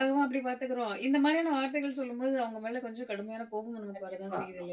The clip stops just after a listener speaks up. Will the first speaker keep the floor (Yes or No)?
No